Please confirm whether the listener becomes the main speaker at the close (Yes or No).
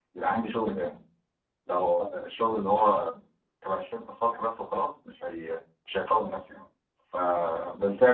No